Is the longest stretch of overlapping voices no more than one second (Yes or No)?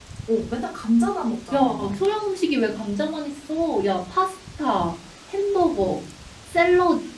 Yes